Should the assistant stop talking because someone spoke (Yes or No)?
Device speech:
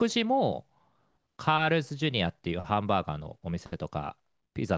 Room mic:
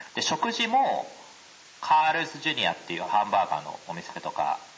No